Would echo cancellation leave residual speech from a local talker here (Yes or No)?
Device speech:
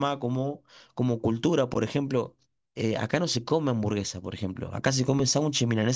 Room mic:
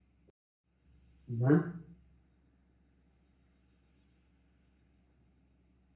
Yes